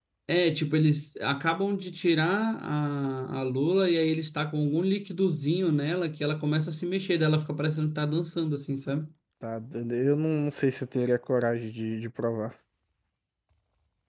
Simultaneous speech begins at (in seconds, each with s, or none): none